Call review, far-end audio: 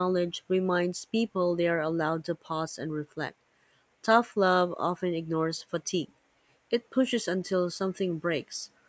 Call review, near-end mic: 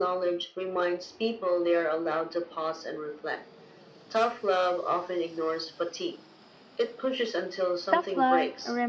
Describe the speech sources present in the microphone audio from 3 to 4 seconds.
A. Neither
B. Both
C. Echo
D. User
C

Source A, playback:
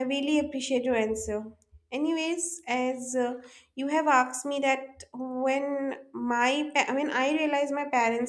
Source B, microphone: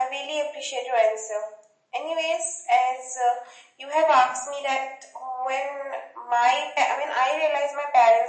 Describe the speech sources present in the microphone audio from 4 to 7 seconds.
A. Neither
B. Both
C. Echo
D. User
C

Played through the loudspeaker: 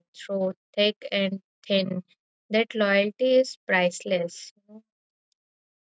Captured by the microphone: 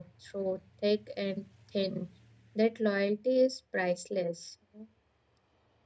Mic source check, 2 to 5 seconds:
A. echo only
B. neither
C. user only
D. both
A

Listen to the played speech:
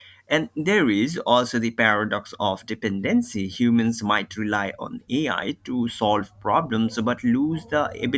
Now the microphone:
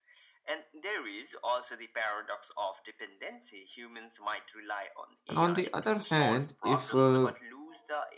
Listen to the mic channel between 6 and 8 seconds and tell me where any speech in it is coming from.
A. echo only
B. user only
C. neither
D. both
D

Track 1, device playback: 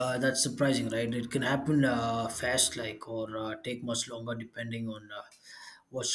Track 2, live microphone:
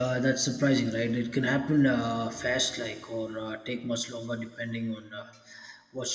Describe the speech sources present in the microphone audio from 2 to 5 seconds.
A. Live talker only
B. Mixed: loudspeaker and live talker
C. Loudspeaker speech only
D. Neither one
C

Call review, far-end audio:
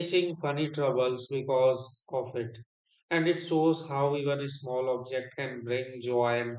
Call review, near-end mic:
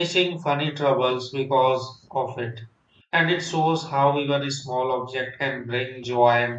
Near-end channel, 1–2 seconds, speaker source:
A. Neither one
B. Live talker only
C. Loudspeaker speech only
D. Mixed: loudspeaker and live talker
C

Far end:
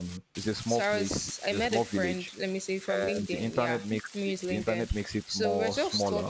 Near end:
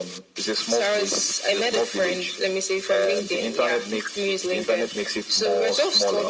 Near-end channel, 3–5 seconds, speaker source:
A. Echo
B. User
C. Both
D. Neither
A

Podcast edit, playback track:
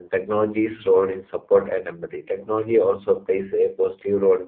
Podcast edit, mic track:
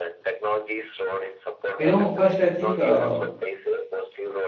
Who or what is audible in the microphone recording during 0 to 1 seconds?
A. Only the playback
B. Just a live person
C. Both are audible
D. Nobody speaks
A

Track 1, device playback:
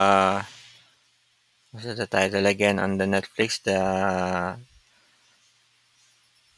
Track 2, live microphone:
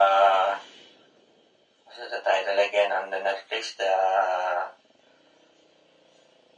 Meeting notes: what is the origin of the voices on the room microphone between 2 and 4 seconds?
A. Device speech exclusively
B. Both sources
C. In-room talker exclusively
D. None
A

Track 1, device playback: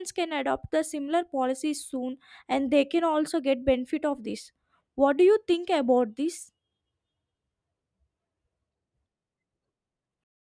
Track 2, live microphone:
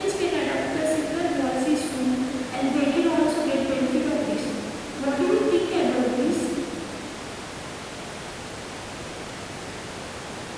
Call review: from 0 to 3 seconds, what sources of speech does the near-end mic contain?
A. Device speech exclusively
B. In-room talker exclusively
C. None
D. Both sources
A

